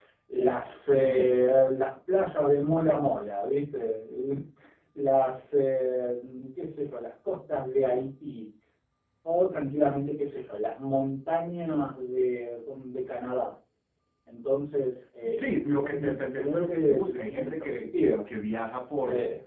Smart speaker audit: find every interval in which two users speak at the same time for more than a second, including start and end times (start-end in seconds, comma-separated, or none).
15.3-18.2